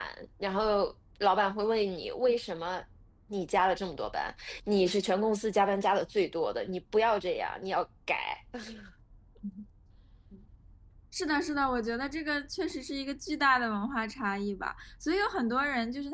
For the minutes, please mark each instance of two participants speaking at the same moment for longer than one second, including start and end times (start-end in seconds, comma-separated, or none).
none